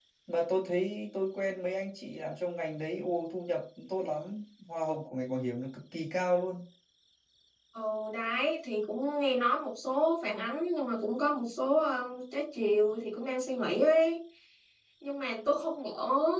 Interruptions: none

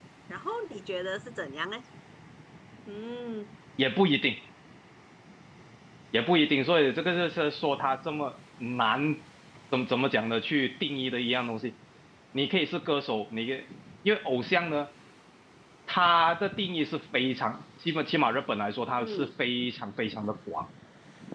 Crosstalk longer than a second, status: none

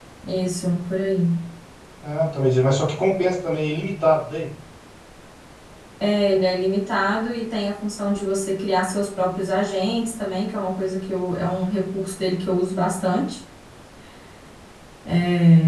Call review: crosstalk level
none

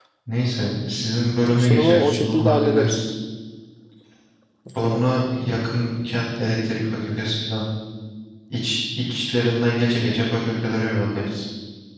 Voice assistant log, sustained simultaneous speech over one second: present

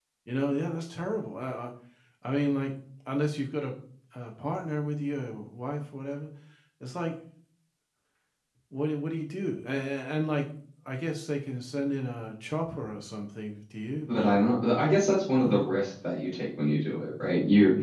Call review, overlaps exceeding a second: none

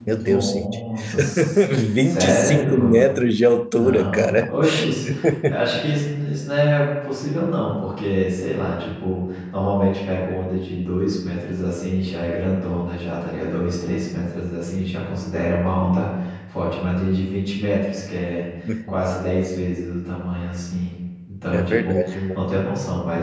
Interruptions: present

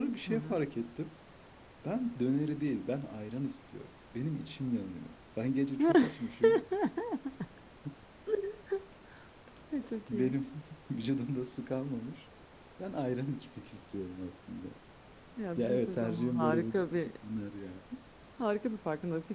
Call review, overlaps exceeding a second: present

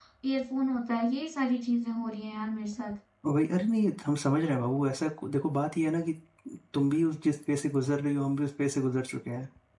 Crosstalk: none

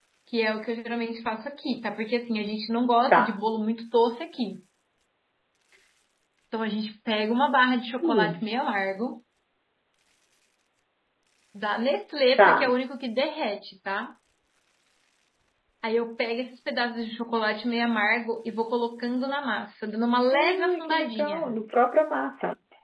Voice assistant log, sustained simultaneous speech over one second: present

